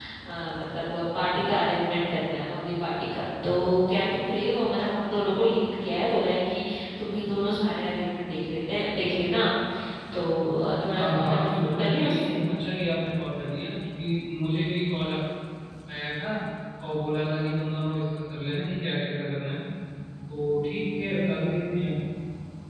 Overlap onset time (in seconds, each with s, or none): 10.9 s